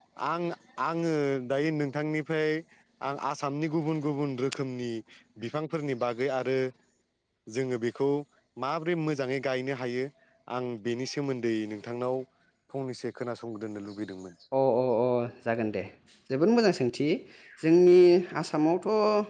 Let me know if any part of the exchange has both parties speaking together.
No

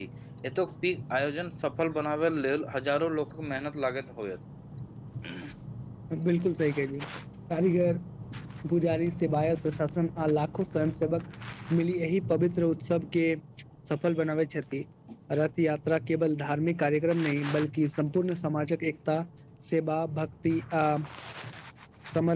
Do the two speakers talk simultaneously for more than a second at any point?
No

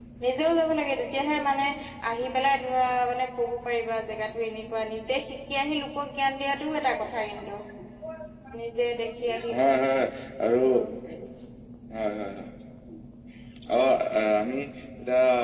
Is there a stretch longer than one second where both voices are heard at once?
No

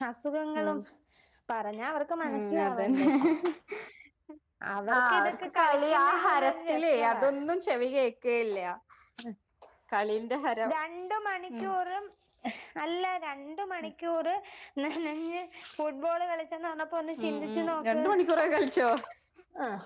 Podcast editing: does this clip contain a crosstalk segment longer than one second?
Yes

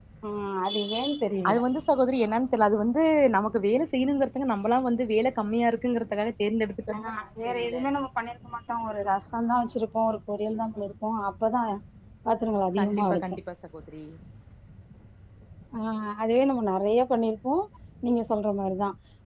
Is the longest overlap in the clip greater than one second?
No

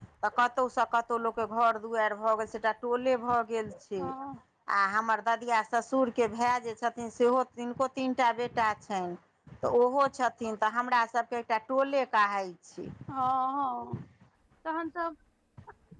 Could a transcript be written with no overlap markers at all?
Yes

